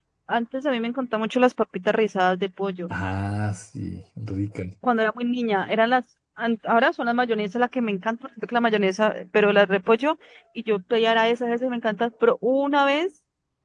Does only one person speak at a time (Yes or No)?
Yes